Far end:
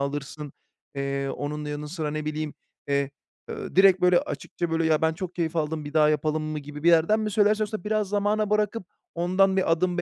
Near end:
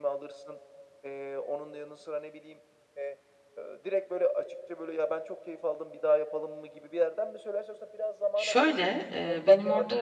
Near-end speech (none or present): present